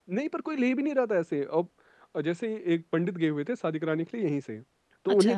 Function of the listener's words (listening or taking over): listening